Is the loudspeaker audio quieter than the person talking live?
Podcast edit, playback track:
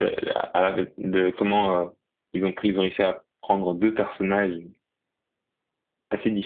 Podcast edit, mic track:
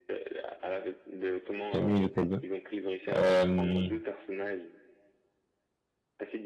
Yes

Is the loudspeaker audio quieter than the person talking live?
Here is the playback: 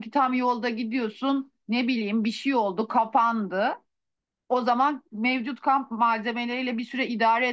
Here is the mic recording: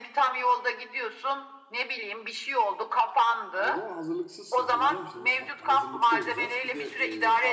No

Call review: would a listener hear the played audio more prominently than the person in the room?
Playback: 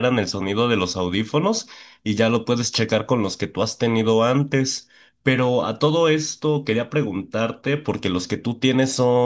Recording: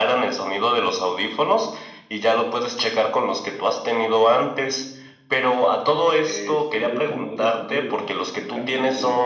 Yes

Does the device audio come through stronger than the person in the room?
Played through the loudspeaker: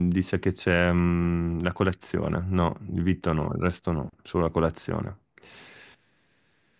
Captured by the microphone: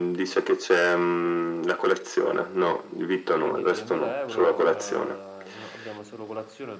Yes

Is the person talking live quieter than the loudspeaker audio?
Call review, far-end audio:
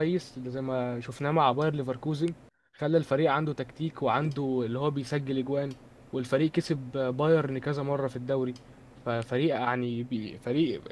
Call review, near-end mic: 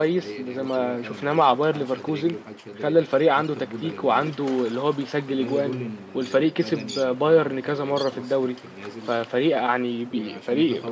Yes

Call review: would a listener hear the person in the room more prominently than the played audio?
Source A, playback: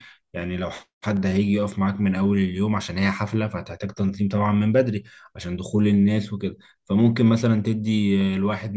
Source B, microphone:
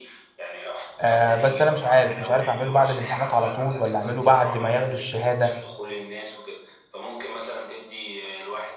Yes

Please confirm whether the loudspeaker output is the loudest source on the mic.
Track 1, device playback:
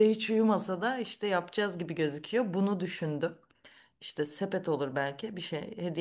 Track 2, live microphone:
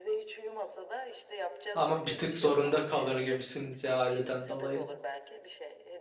No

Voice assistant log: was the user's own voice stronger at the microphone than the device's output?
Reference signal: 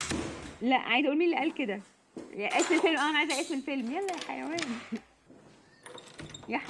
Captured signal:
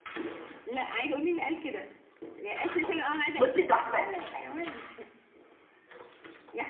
Yes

